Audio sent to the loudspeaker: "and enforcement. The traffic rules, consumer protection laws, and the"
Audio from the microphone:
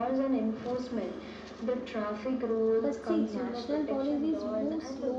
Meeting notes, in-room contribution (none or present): present